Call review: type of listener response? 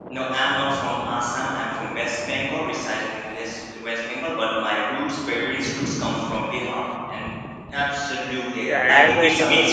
taking over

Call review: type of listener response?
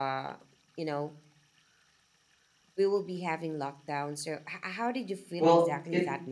taking over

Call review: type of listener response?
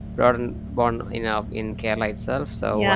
taking over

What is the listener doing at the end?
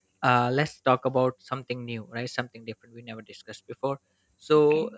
listening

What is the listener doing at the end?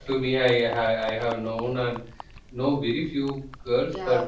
listening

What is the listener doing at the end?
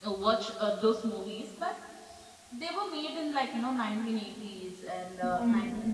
listening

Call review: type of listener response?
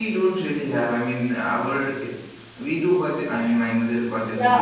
taking over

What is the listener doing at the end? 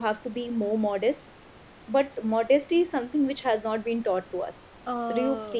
taking over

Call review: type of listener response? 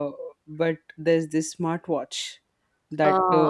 listening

